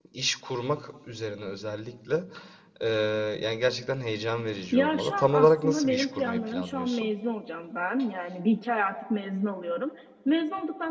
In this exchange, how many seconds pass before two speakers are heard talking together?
5 s

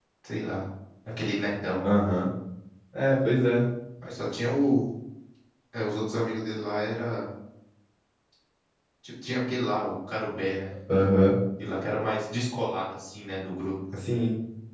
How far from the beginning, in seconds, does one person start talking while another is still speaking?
none

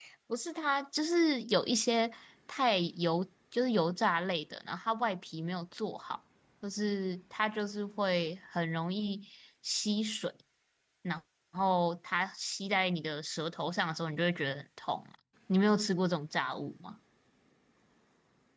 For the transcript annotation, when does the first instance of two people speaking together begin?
none

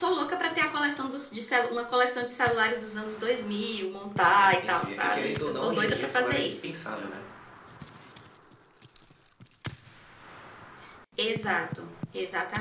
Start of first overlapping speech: 4 s

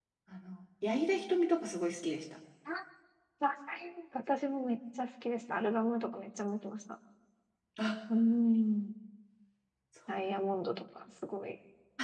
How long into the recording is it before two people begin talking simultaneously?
none

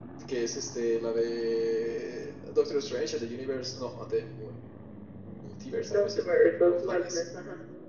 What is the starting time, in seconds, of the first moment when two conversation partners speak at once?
6 s

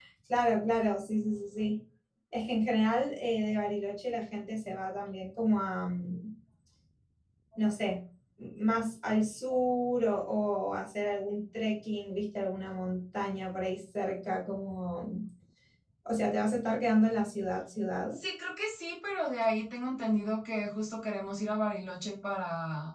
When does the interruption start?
none

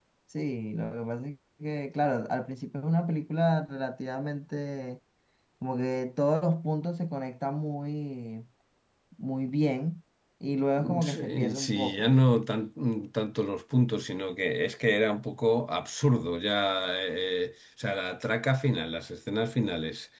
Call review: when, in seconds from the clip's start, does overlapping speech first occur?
11 s

